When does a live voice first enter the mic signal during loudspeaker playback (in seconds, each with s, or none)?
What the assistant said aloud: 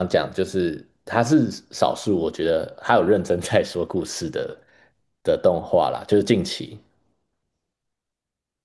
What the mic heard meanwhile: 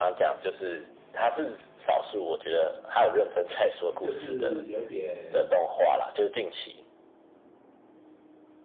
3.8 s